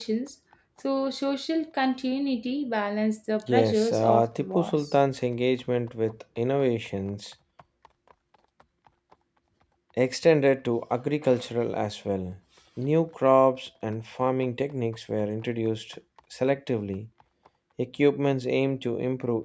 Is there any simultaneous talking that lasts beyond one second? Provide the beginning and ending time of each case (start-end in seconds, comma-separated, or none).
3.5-4.9